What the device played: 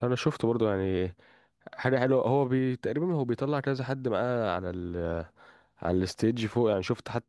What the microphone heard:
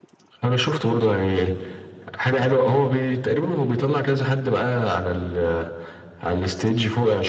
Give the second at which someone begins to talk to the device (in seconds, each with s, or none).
none